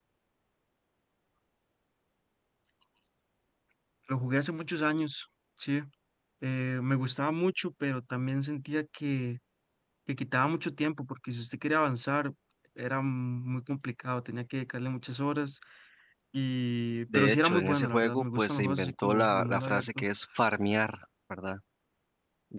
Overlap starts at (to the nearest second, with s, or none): 17 s